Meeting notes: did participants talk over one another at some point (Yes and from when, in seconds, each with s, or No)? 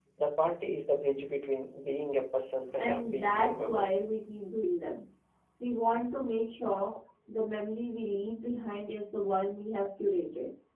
Yes, from 2.7 s